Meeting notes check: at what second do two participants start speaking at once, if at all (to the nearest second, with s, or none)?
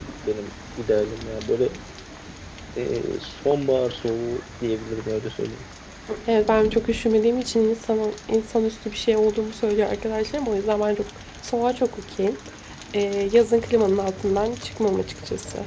none